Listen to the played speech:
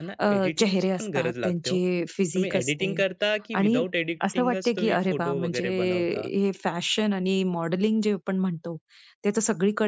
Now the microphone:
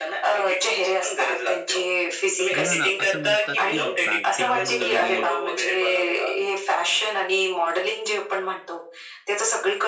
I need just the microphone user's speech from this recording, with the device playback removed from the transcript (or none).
बघा ना, असं म्हणतात की बॅकग्राऊंड वगैरे,